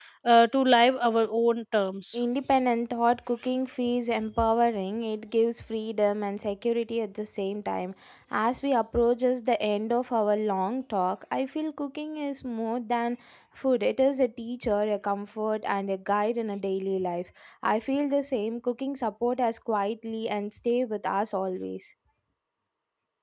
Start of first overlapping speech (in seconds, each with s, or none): none